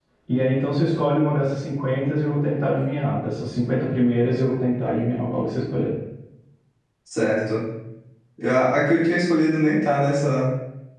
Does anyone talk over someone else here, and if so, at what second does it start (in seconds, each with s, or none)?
none